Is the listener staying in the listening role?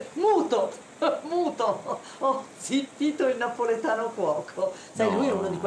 Yes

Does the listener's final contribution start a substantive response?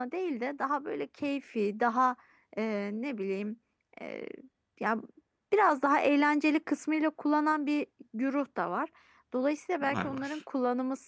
No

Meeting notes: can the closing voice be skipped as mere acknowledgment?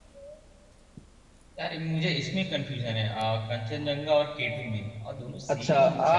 No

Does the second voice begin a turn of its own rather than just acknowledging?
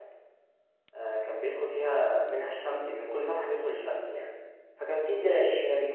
No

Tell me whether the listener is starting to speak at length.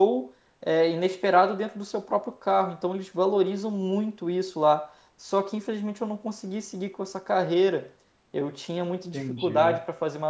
No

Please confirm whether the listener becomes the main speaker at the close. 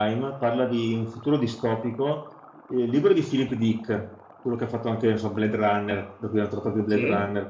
No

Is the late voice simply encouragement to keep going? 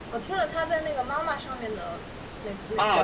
No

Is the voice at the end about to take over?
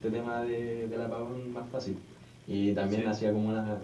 No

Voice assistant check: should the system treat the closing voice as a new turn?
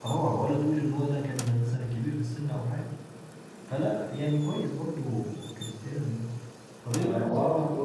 Yes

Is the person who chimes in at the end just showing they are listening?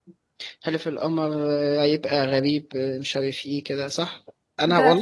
No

